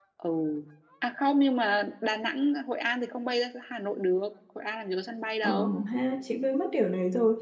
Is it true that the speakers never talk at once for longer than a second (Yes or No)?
Yes